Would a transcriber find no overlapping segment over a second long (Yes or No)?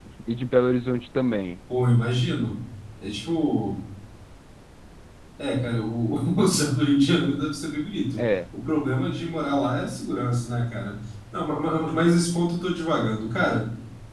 Yes